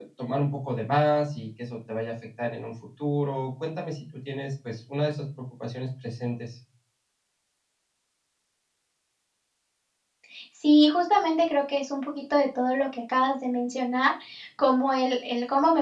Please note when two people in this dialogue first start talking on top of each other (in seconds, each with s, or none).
none